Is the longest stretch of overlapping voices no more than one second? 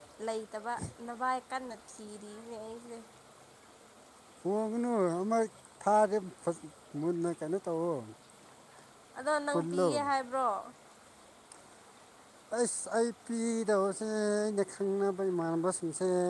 Yes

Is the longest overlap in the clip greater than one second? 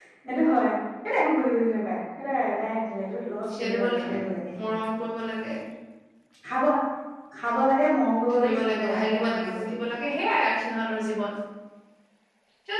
Yes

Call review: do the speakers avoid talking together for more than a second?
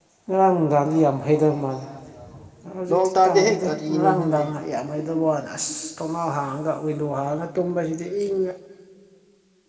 No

